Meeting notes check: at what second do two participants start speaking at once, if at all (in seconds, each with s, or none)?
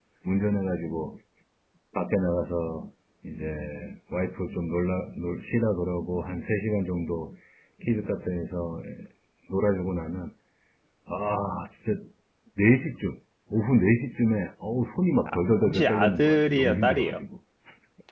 15.6 s